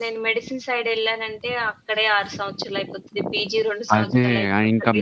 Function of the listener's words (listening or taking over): taking over